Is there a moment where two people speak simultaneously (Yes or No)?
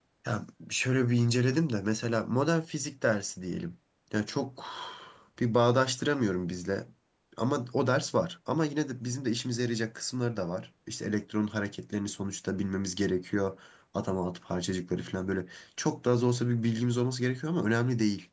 No